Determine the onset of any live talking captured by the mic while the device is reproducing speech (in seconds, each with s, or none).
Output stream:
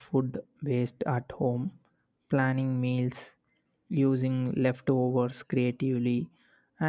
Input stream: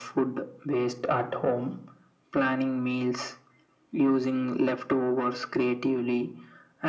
none